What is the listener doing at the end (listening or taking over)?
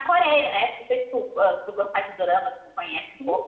taking over